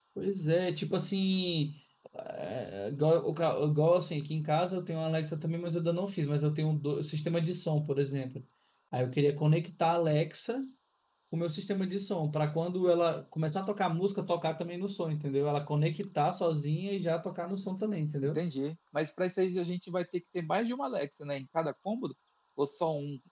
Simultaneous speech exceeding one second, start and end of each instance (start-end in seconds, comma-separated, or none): none